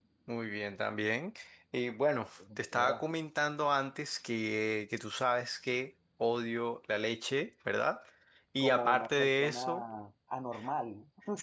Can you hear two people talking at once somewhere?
Yes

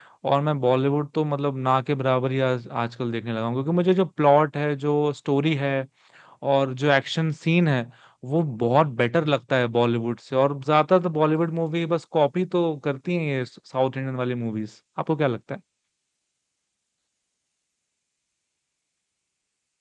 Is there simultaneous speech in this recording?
No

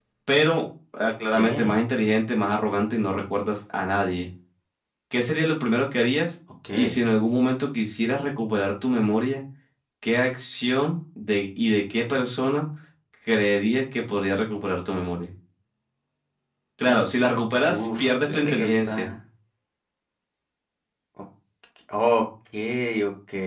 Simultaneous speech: Yes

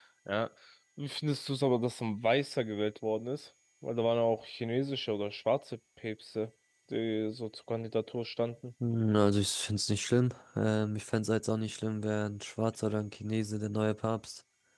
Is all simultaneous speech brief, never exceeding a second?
Yes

